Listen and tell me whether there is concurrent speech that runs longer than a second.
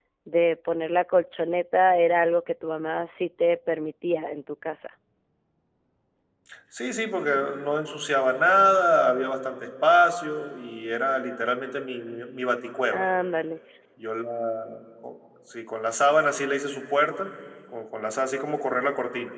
No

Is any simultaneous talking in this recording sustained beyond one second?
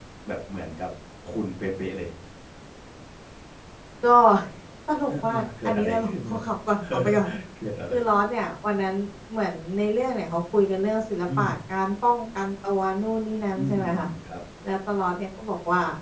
Yes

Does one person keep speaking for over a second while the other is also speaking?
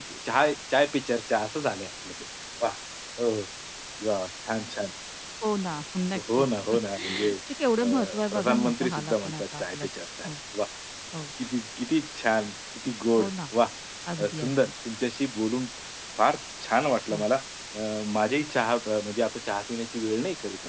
Yes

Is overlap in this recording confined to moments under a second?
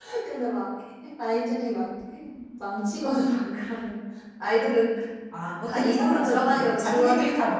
No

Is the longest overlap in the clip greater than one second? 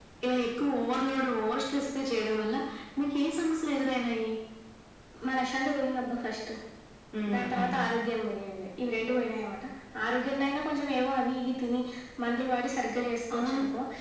No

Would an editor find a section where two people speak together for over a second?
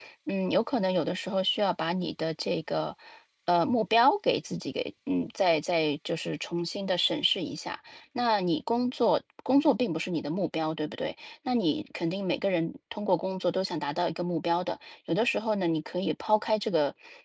No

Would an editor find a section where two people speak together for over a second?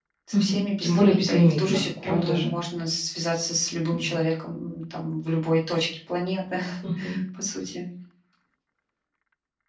Yes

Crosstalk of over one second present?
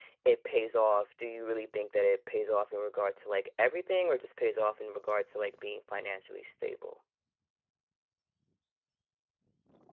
No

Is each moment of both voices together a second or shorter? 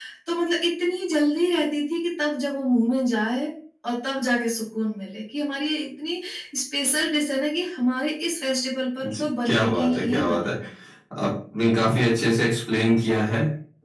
No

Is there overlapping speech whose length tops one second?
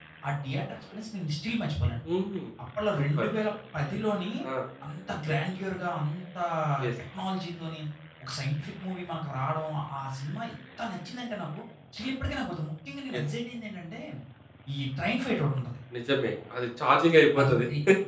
No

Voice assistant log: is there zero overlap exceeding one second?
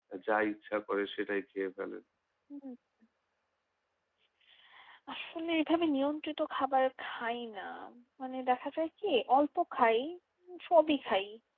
Yes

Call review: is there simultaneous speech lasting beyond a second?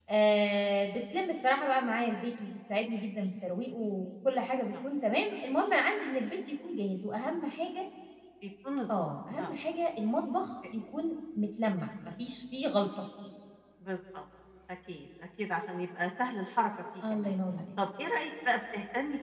No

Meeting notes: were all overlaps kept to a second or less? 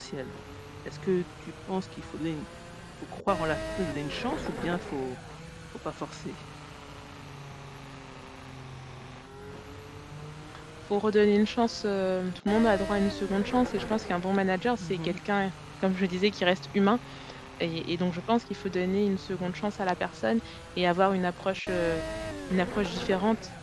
Yes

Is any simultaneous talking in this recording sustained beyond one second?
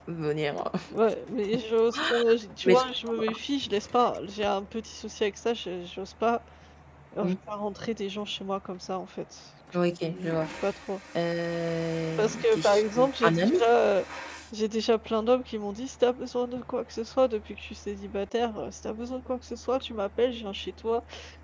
Yes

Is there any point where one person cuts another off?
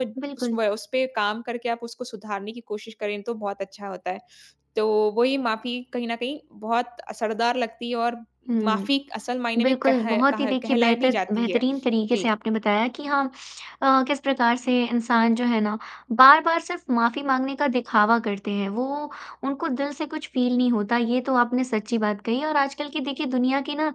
Yes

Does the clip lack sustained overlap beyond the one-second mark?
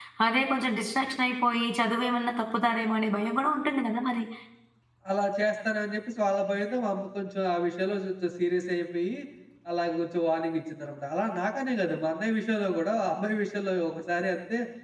Yes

